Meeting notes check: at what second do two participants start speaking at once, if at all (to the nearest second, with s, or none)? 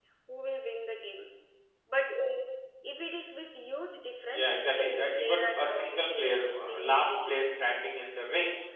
4 s